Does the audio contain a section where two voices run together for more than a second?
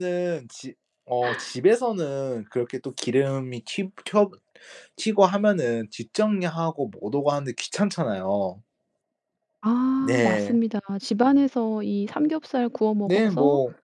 No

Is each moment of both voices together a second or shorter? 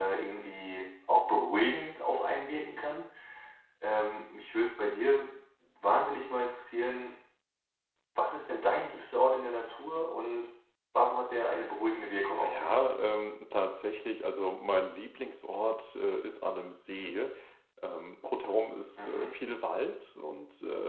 Yes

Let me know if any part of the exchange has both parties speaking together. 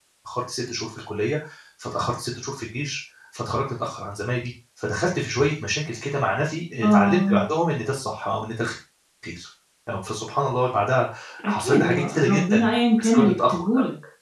Yes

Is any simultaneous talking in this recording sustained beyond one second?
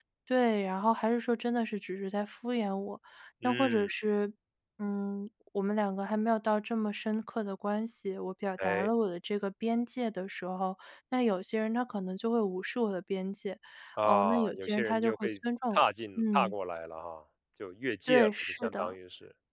Yes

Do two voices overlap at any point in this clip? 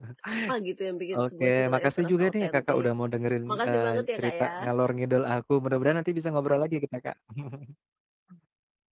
Yes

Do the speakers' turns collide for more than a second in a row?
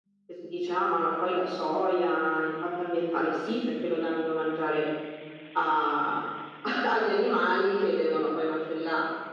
No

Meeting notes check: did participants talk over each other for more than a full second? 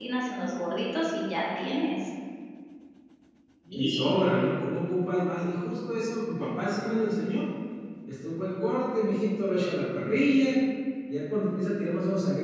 No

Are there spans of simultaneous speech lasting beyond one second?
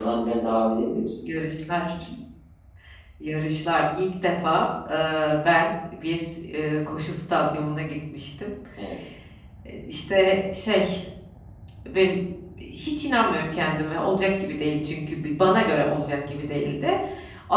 No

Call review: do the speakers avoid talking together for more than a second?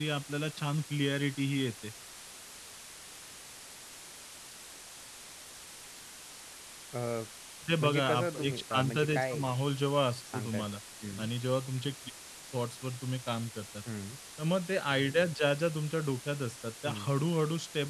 No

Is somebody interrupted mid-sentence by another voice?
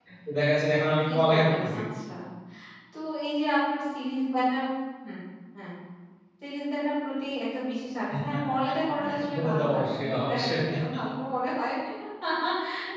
Yes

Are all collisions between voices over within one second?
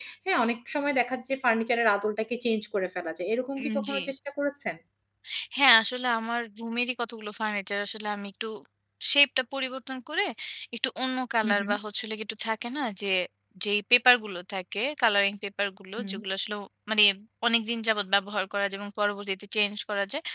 Yes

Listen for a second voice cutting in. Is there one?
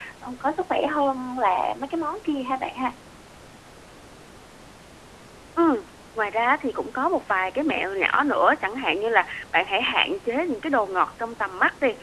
No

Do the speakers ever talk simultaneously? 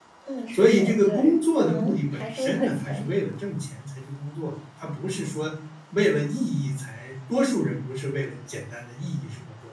Yes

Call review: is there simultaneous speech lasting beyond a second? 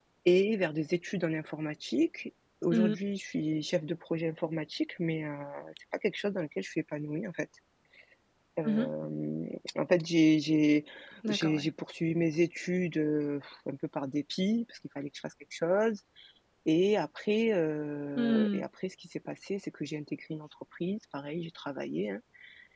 No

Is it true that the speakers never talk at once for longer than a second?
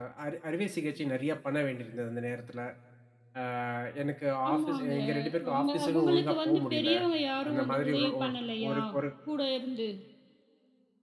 No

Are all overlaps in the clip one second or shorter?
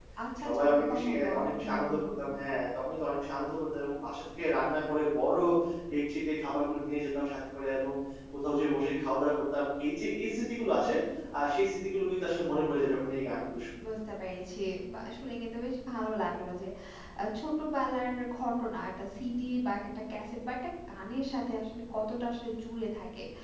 No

